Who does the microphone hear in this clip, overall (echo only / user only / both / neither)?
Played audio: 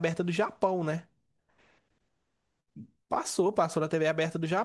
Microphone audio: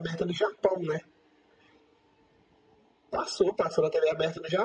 echo only